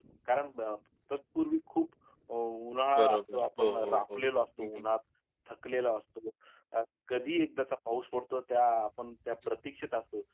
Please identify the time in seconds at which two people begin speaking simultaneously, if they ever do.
3.0 s

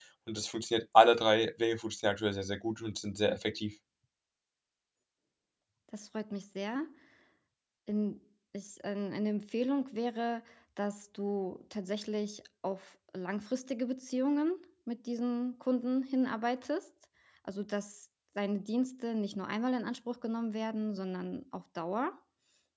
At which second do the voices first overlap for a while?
none

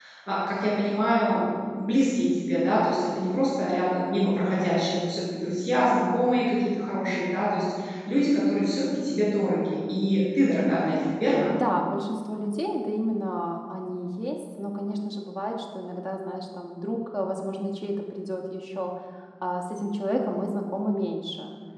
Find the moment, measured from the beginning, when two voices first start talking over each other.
none

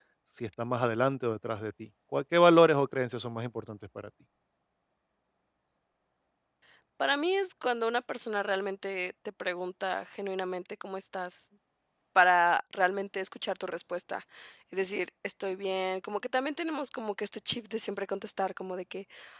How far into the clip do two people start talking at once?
none

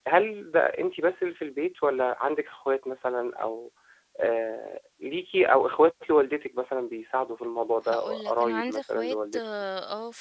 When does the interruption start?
7.8 s

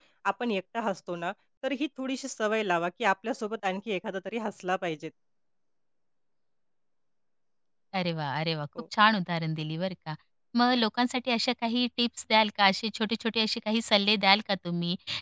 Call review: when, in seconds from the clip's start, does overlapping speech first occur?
none

